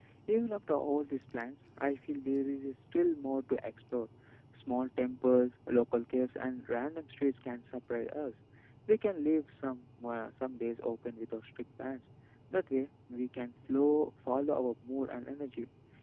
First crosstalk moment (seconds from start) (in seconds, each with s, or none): none